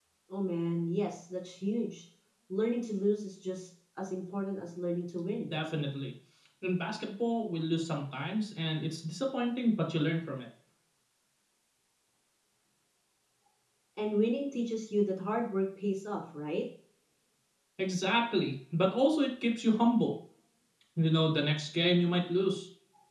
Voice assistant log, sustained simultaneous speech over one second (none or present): none